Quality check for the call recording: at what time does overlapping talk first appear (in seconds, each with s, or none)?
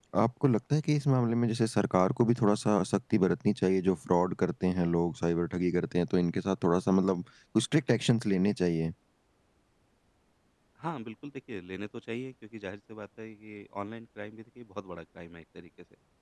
none